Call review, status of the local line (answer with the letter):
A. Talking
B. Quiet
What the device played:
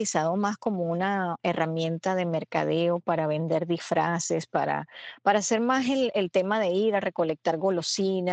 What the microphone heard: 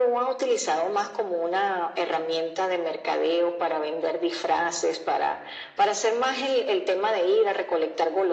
B